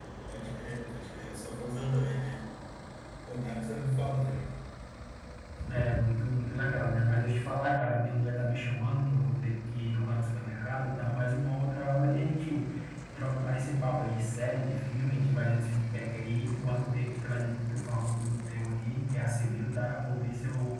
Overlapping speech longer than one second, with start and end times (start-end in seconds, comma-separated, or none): none